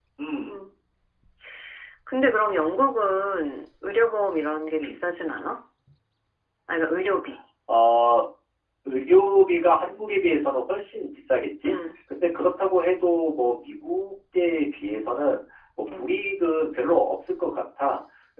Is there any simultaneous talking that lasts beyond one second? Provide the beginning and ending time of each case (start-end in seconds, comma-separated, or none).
none